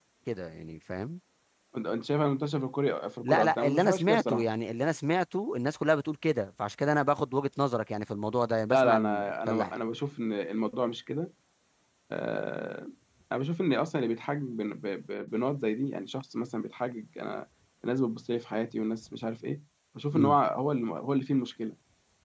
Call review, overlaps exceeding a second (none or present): present